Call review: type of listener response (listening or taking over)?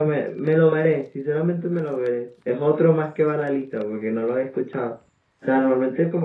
listening